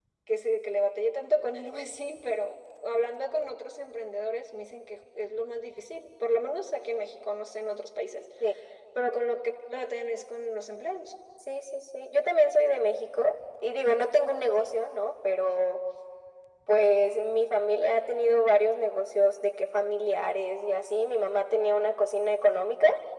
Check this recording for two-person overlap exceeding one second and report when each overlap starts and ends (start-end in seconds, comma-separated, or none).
none